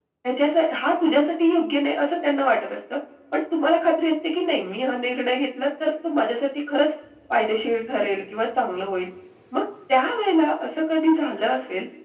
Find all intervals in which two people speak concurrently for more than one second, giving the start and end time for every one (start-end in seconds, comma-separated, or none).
none